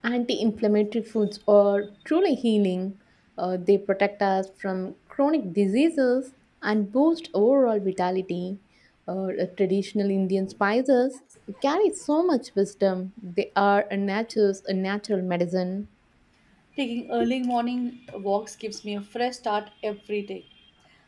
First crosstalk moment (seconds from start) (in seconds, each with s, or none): none